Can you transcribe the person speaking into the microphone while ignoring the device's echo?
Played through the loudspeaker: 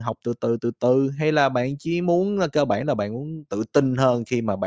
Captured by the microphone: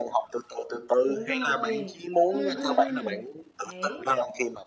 Đúng rồi. Ừm, ừm, ừm, đấy.

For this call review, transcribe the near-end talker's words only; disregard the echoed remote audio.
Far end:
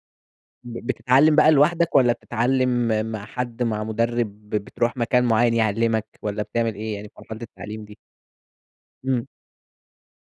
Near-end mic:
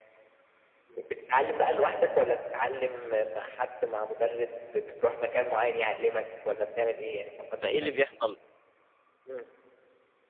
فإيه اللي بيحصَل؟

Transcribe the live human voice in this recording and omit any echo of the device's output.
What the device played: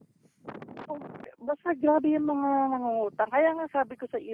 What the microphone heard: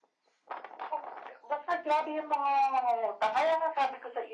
none

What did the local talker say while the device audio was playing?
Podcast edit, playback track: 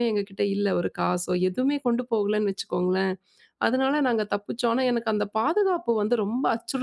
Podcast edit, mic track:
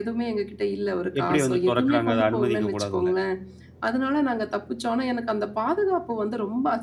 எப்படி வந்து தொறக்குறாங்க? அத அனுமதிக்க கூடாதுல?

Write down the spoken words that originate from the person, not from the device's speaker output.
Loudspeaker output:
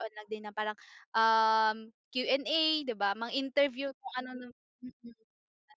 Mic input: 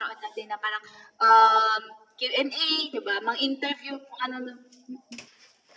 none

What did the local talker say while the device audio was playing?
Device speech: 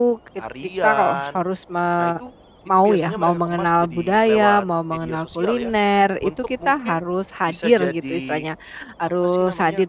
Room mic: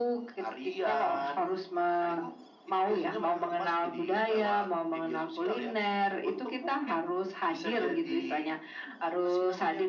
none

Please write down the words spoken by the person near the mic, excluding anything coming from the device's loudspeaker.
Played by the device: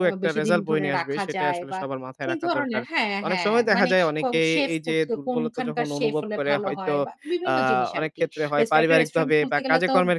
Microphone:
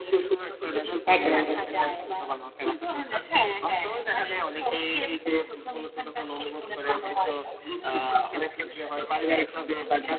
একেবারে।

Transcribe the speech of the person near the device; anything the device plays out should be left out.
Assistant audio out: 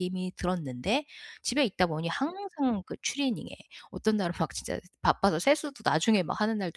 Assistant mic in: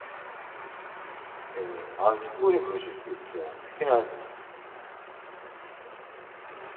예. 아 충분히 그러실 수 있죠. 특히나

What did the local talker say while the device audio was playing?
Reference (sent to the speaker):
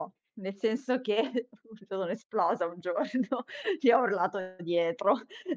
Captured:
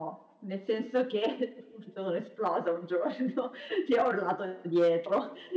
none

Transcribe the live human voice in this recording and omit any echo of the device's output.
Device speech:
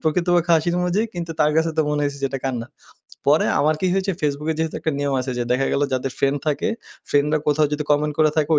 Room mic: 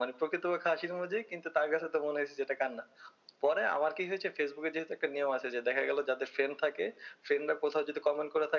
none

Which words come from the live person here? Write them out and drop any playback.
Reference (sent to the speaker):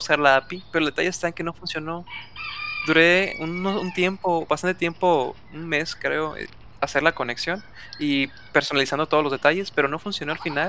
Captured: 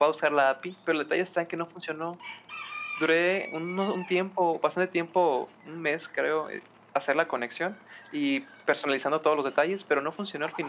none

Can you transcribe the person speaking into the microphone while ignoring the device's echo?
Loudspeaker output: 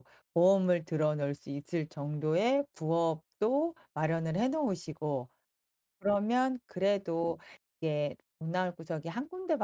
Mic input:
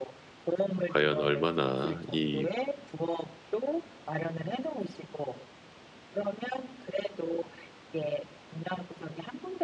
과연 얼마나 이

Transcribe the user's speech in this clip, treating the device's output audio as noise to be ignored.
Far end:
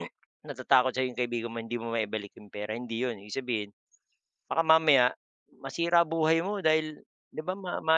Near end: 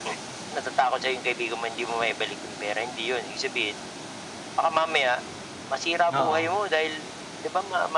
Oo.

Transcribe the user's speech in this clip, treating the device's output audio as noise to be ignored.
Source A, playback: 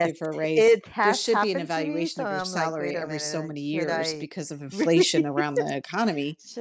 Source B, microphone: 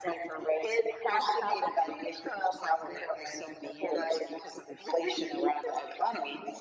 none

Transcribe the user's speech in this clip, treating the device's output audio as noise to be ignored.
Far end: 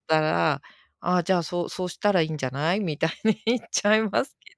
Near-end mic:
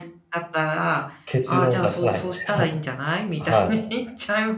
結論出さない、みたいな。はい。

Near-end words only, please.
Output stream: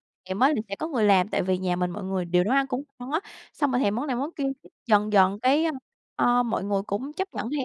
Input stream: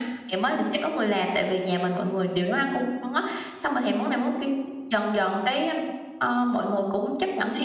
none

